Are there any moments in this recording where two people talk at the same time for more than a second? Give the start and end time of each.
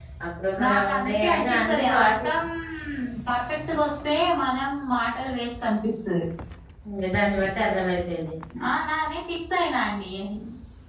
0.6-2.4

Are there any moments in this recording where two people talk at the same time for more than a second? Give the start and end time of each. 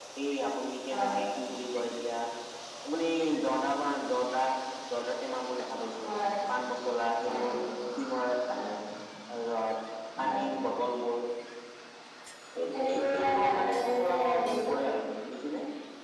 12.7-14.5

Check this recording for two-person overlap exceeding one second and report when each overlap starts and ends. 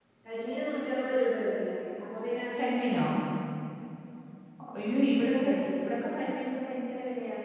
none

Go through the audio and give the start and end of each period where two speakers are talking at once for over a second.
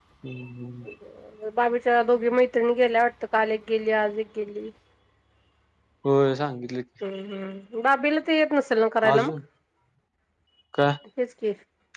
none

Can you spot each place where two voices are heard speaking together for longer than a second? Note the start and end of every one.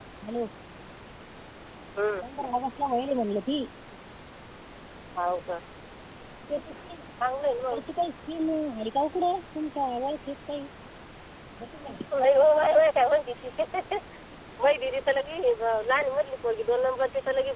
none

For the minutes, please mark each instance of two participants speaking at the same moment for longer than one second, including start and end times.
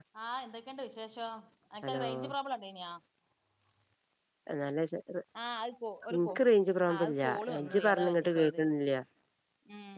6.9-8.6

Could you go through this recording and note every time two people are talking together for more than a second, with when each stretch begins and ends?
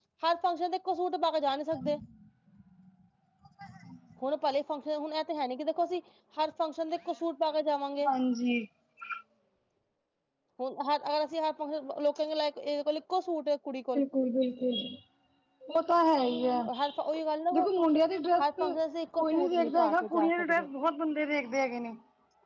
19.1-20.7

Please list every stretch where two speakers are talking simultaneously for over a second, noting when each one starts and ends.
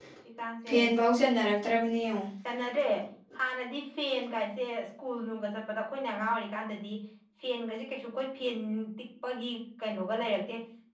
none

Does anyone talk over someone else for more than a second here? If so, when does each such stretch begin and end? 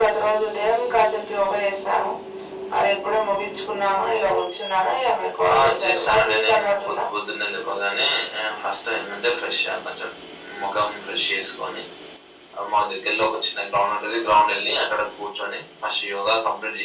5.5-7.0

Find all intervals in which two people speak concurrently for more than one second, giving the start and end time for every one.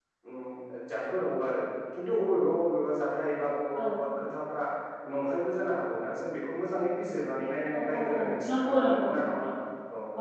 7.7-9.5

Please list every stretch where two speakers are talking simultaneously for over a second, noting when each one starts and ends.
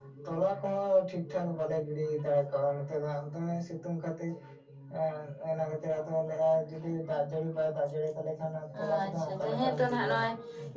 8.7-10.3

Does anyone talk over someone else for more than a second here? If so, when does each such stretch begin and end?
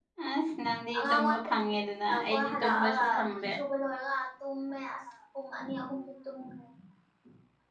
2.1-3.5

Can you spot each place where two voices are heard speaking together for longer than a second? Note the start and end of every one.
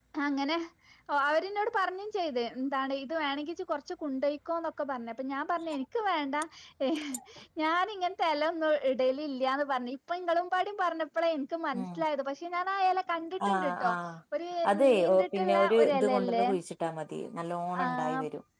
14.8-16.4

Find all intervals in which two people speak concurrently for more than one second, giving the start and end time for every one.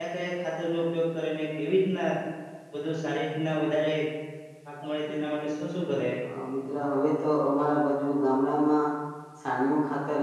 none

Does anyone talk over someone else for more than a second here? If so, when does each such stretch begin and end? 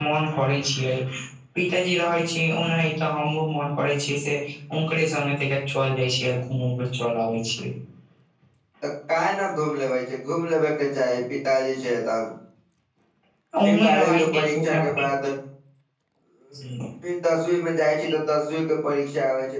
13.6-15.0

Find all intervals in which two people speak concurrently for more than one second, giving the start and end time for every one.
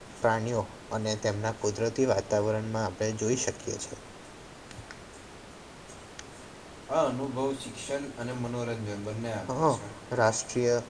none

